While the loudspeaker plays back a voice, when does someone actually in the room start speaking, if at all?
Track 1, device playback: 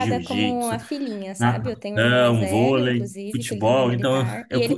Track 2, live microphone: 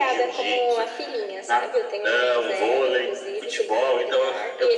none

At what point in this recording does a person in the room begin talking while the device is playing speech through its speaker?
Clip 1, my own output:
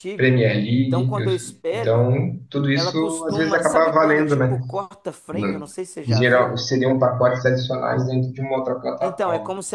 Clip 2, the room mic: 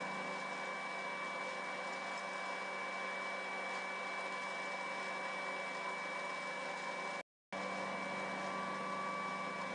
none

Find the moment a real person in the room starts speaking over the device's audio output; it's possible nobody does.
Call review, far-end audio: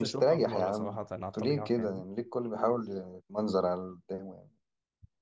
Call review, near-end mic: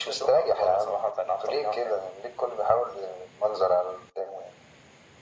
none

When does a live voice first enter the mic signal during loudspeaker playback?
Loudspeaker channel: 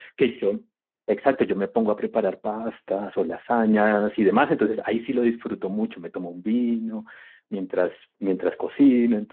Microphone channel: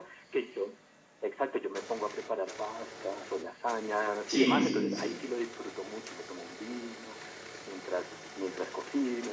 4.3 s

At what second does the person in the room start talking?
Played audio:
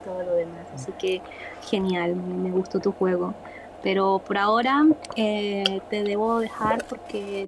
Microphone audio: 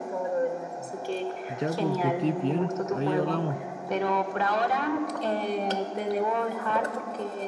1.5 s

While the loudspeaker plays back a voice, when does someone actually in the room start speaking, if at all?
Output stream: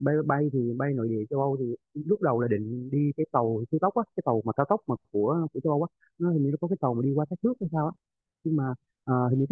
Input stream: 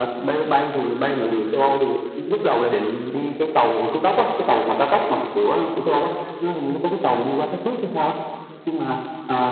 none

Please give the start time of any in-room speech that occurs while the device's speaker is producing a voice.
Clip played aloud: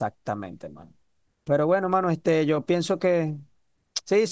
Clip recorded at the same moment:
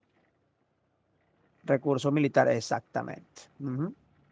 1.6 s

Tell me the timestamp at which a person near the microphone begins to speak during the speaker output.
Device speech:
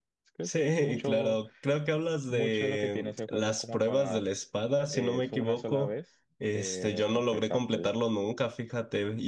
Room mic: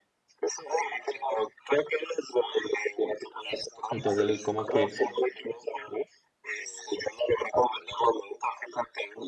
3.9 s

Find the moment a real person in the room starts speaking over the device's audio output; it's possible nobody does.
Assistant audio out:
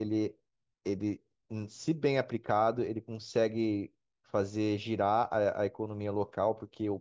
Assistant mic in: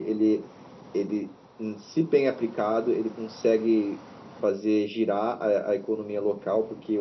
none

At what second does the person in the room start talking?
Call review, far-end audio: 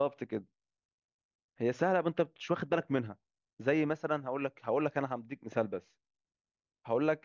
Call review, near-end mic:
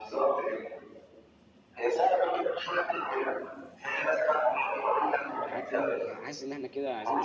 5.4 s

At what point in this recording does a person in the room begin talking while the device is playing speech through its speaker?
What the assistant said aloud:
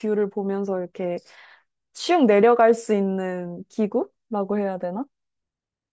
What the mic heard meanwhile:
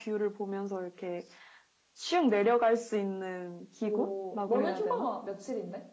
3.8 s

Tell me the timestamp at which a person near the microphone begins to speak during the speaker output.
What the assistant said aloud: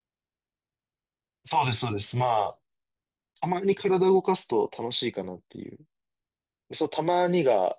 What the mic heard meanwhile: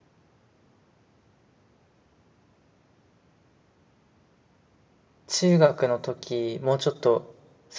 5.3 s

